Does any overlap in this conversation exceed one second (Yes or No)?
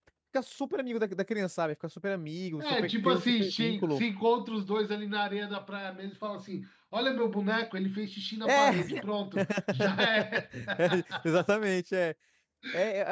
Yes